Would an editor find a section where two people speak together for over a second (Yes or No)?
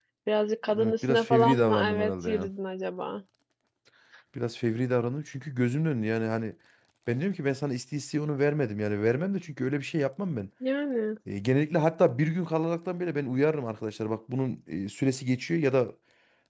Yes